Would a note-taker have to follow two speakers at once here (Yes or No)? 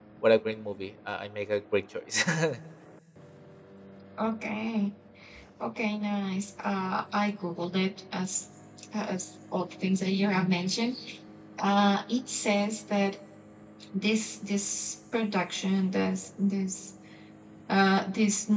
No